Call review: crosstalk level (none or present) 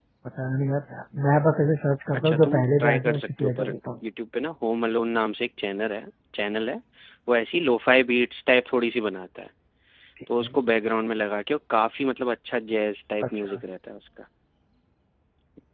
present